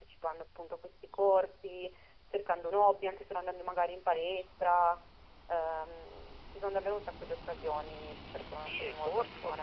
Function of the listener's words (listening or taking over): taking over